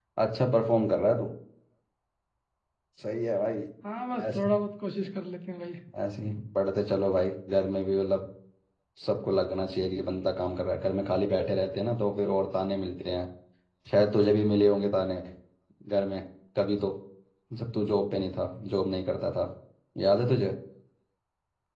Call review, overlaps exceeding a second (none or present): none